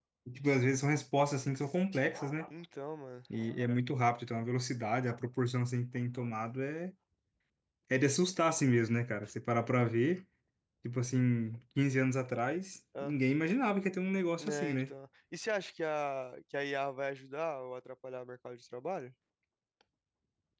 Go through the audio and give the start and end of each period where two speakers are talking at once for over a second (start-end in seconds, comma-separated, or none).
none